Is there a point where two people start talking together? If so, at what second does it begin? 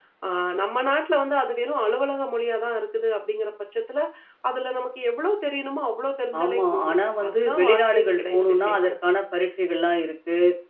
6.3 s

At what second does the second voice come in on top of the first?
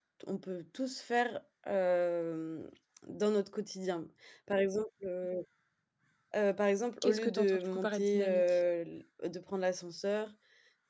7.0 s

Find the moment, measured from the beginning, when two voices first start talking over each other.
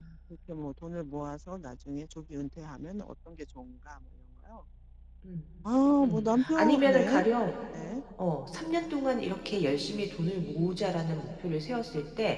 6.0 s

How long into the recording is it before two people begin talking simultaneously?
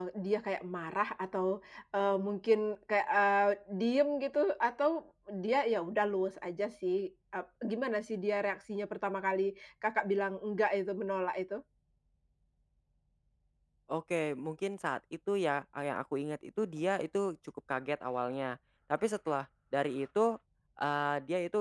none

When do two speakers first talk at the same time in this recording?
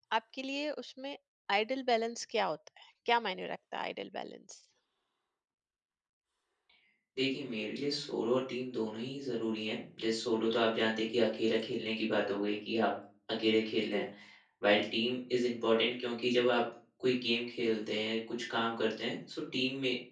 none

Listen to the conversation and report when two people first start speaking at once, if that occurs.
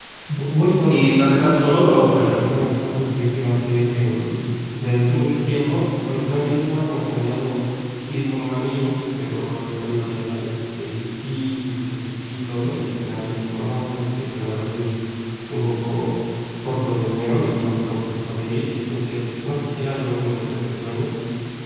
0.9 s

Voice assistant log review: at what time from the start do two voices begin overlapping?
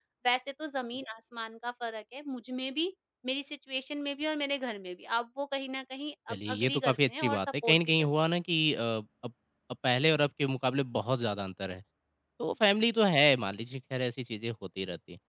6.3 s

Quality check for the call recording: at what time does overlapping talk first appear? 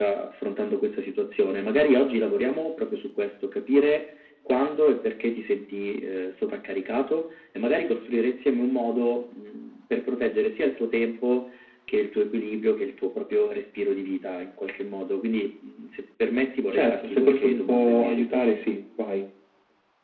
16.7 s

